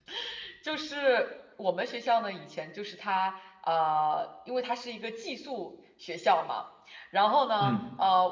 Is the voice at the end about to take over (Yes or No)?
No